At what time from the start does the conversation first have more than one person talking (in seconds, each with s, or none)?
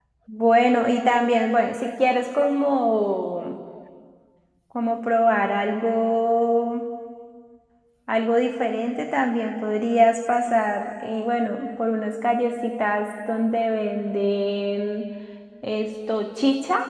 none